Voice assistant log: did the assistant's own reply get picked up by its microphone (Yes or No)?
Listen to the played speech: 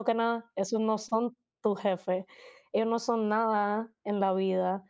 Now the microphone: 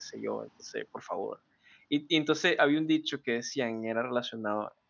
No